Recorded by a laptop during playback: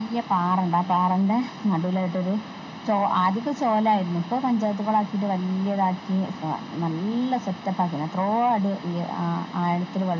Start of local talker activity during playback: none

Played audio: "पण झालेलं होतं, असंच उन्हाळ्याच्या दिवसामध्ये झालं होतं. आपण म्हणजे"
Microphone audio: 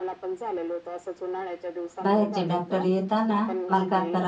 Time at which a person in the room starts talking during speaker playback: 2.1 s

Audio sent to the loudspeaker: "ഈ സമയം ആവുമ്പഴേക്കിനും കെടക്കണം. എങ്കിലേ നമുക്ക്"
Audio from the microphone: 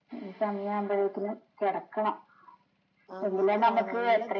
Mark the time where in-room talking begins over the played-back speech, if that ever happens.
3.2 s

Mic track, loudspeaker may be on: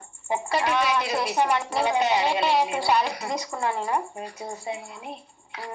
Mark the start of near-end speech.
none

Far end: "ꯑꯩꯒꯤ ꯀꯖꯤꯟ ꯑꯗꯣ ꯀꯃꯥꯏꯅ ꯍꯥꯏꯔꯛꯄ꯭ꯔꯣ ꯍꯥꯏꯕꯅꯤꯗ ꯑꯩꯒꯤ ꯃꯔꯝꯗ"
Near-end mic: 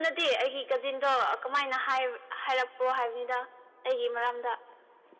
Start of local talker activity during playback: none

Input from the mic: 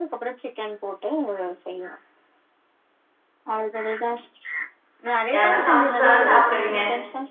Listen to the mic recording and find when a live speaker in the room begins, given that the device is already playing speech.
5.3 s

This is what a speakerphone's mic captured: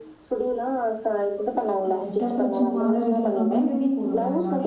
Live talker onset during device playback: 1.9 s

